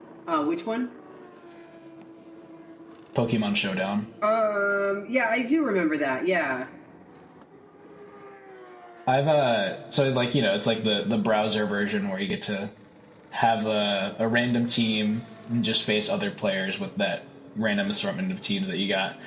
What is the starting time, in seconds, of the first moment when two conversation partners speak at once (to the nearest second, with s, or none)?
none